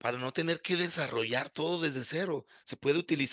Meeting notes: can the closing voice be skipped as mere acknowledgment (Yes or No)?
Yes